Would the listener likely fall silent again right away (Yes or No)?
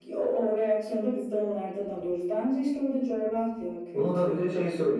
No